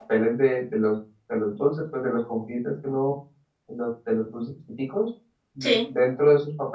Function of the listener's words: listening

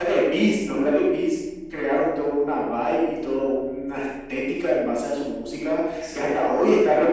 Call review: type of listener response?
listening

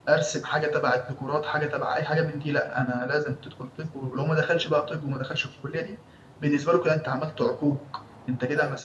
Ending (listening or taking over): listening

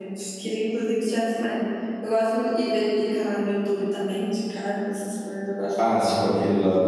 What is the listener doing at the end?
taking over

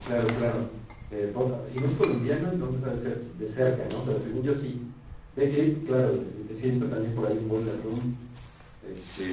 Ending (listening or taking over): taking over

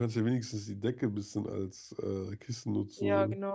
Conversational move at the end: taking over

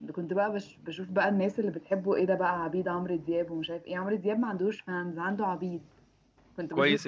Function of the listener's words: taking over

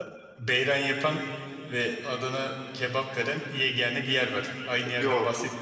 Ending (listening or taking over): taking over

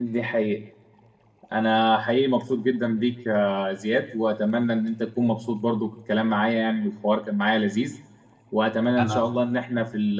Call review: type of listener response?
listening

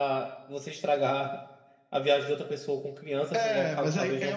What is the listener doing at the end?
taking over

